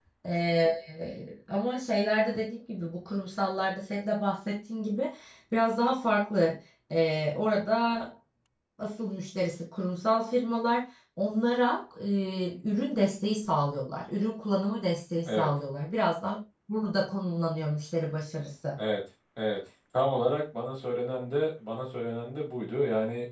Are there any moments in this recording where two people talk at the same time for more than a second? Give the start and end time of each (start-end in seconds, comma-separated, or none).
none